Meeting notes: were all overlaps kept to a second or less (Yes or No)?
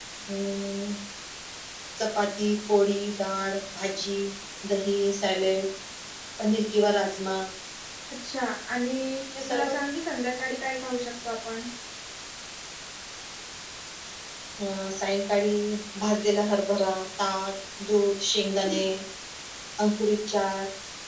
Yes